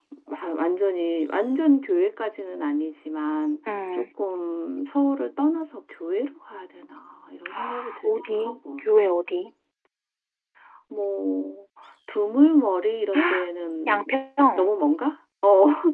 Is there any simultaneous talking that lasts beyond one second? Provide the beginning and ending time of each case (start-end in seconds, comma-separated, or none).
7.5-8.9